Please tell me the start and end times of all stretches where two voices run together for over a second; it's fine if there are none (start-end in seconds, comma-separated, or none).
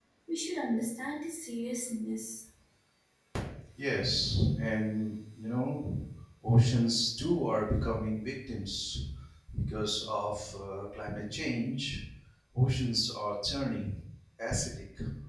none